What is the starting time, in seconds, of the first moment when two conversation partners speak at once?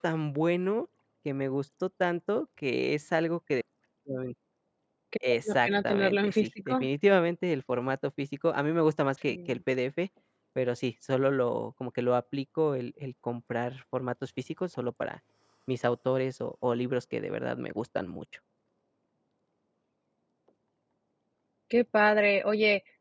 5.5 s

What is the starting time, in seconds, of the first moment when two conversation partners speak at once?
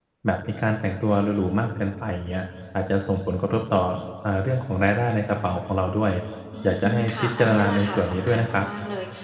6.6 s

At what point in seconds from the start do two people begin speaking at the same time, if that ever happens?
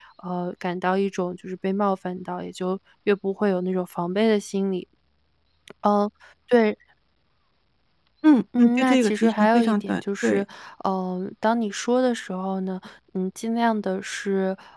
8.6 s

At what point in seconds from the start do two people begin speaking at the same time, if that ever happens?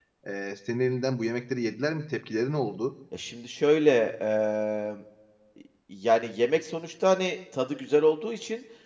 none

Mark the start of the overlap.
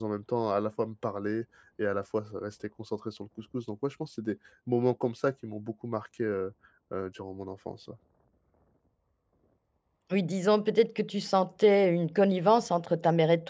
none

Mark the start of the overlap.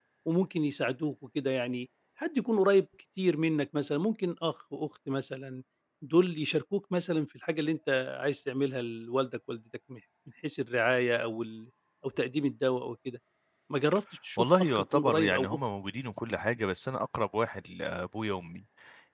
14.4 s

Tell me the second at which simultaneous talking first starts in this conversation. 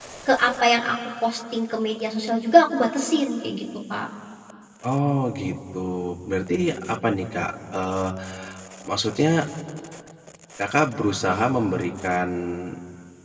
none

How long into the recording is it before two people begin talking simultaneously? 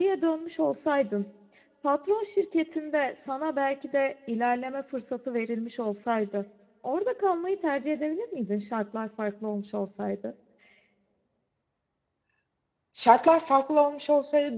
none

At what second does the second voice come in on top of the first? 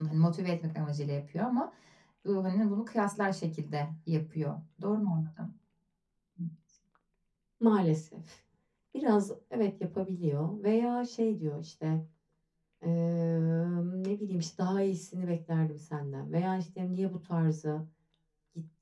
none

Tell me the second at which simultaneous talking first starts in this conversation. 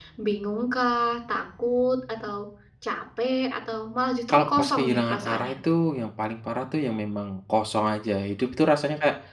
4.3 s

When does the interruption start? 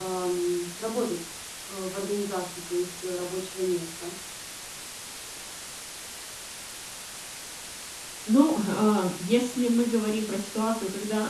none

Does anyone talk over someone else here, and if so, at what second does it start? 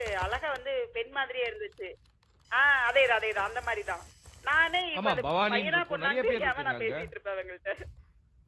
5.0 s

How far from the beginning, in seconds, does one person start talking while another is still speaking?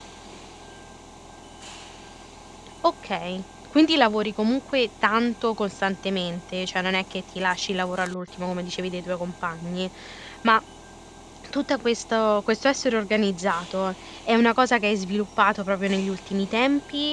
none

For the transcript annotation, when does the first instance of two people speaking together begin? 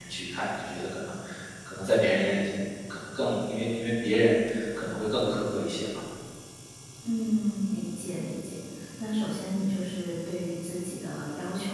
none

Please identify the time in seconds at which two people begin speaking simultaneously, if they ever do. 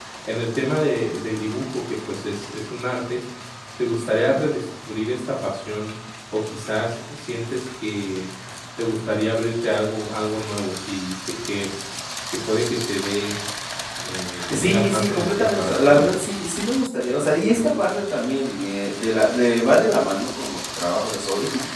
14.5 s

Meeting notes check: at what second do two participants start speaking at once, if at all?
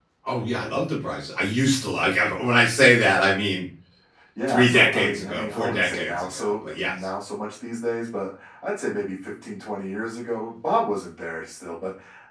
4.5 s

